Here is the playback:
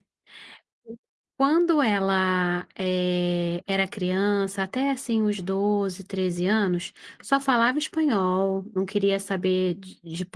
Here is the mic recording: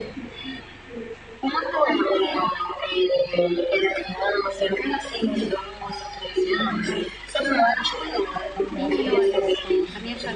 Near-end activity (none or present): present